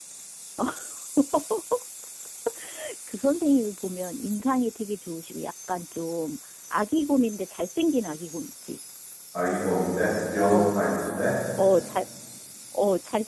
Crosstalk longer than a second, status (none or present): none